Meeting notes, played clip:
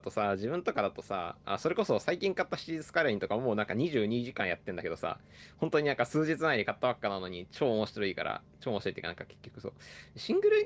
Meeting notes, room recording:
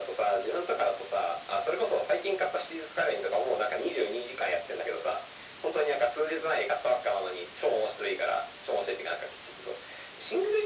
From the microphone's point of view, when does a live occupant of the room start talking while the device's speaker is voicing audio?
none

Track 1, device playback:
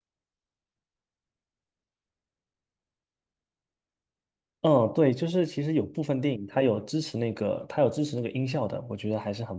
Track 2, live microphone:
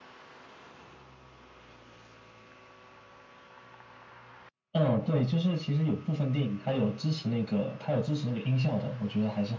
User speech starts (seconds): none

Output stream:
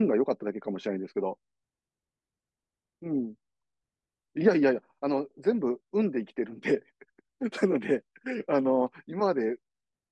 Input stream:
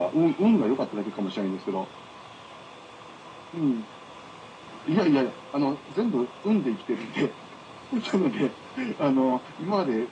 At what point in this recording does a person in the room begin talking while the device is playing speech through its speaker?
none

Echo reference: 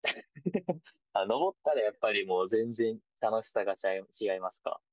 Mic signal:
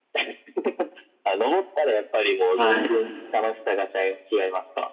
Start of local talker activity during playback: 3 s

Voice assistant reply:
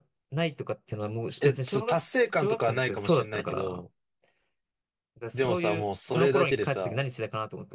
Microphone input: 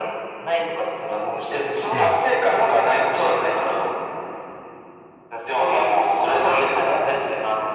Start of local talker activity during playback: 2 s

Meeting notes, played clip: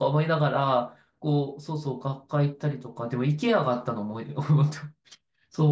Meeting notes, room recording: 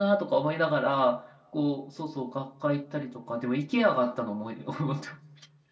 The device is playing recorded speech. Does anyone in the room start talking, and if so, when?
none

